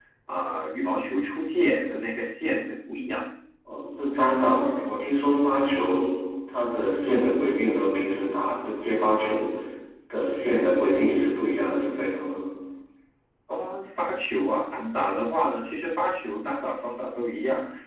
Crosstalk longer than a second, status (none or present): none